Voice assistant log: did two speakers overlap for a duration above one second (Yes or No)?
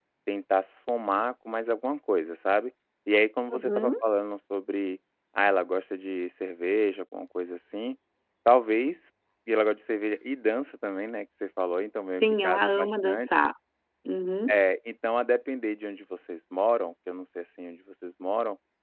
Yes